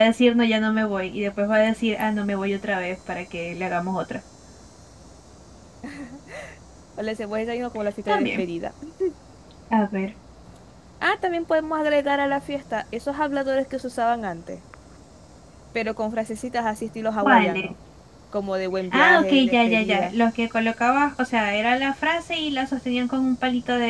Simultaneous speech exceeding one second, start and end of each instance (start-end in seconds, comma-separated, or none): 18.9-20.1